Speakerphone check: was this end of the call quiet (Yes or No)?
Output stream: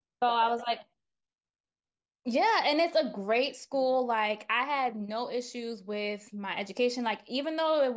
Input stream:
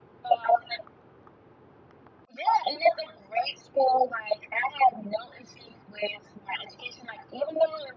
Yes